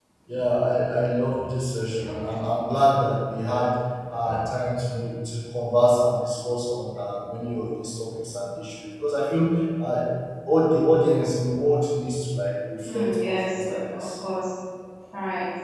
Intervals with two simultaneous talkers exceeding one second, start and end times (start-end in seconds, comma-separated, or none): 12.8-14.1